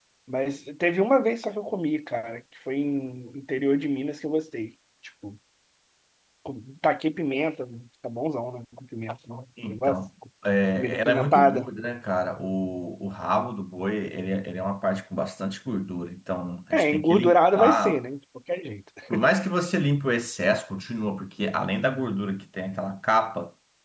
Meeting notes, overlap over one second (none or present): present